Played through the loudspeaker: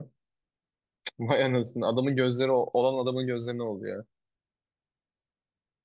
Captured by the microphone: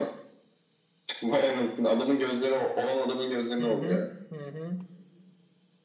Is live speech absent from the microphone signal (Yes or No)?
No